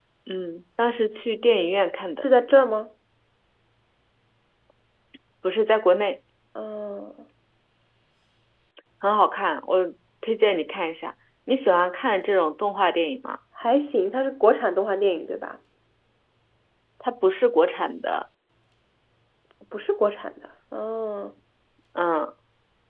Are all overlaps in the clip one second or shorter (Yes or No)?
Yes